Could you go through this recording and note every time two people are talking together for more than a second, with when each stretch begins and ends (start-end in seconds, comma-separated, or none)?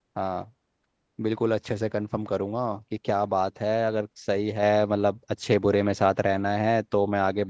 none